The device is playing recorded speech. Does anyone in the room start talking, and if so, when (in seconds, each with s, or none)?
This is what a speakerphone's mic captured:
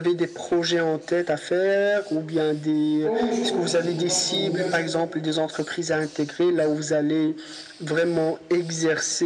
3.0 s